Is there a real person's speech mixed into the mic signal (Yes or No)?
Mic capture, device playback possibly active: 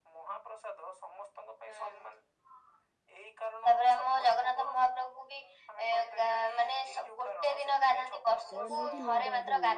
Yes